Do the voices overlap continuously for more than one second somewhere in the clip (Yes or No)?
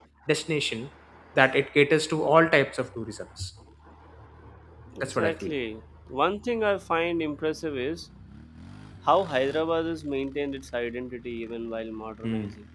No